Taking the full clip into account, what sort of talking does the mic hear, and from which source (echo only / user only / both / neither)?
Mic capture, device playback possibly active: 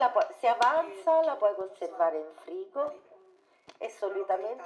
echo only